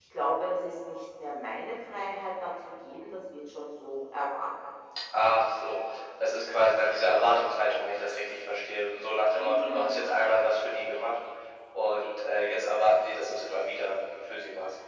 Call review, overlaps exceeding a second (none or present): none